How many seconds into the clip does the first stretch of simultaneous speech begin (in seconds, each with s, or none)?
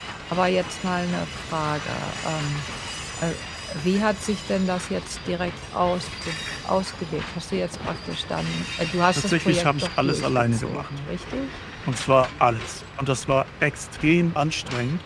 9.2 s